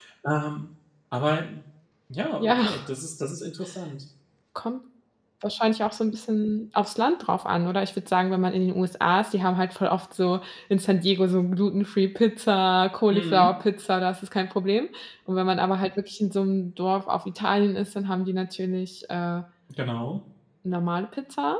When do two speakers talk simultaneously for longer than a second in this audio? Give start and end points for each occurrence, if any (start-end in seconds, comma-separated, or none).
none